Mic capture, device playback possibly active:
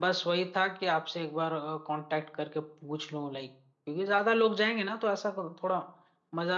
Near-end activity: present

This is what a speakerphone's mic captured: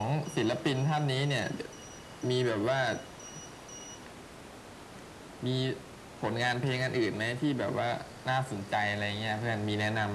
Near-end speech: none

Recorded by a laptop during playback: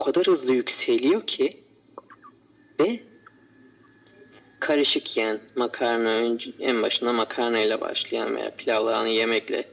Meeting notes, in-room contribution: none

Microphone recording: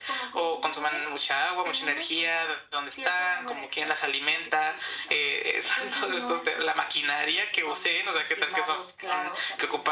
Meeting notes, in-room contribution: none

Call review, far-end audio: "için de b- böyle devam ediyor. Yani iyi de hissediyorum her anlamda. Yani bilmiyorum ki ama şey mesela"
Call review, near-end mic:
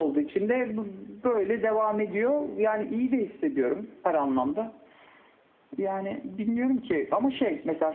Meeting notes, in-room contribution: none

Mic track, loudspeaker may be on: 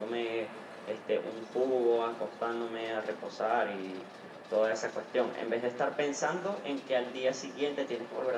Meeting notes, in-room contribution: none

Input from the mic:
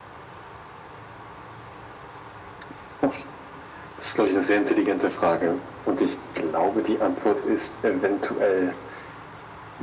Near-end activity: none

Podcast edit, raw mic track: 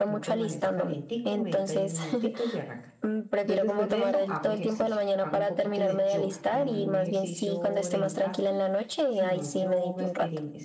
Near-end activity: present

